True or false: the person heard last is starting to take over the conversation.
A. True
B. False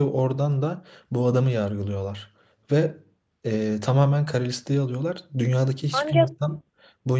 B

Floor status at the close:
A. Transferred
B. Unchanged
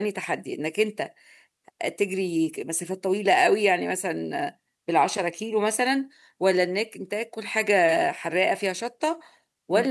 B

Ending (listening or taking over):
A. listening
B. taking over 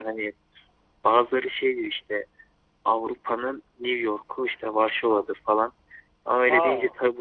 A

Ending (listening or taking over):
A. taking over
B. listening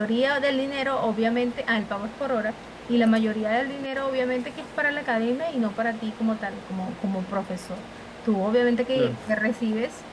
B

